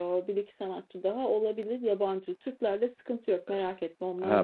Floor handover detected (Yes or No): Yes